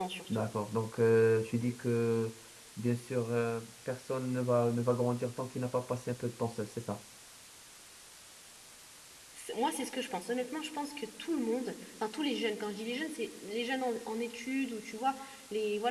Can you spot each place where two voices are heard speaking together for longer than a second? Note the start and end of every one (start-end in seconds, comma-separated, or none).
none